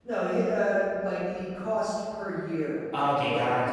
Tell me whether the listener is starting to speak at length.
Yes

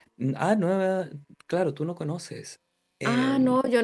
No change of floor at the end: No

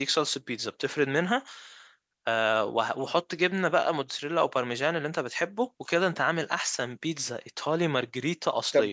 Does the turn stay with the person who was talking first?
No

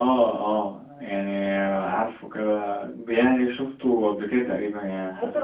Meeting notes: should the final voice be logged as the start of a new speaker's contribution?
Yes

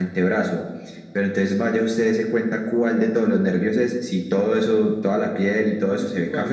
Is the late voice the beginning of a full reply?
No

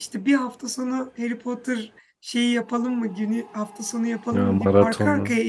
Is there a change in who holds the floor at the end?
No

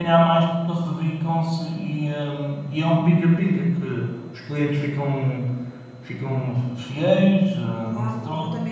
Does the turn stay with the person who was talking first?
No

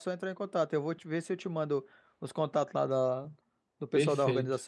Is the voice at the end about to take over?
Yes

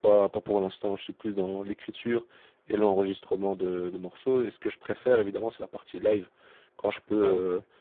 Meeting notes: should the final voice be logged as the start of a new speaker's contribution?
No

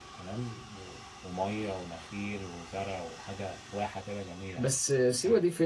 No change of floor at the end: No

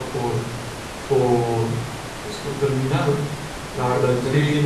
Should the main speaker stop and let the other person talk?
No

